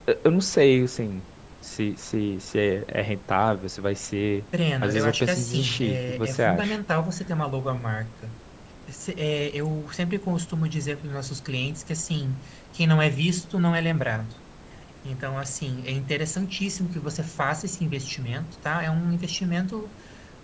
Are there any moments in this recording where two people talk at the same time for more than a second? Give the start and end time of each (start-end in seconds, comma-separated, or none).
4.8-6.8